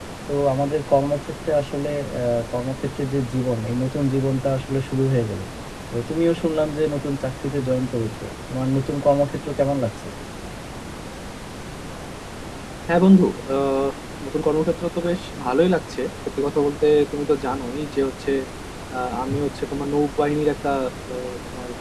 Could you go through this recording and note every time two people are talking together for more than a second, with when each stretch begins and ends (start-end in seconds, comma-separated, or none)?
none